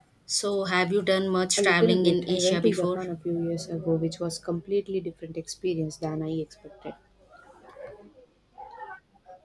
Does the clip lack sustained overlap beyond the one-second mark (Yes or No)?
No